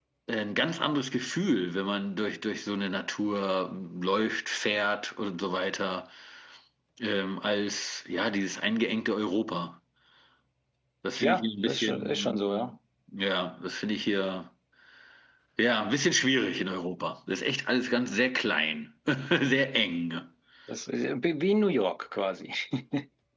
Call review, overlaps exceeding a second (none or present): present